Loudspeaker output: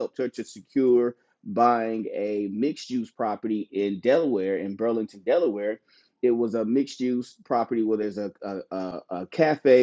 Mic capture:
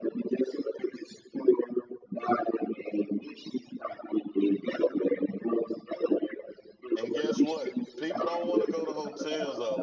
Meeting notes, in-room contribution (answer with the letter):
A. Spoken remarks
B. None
A